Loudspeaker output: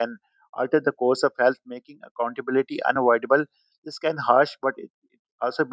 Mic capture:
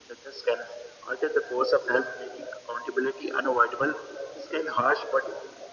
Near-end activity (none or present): none